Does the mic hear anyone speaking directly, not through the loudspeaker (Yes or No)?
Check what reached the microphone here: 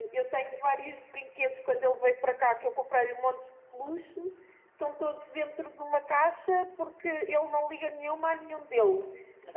No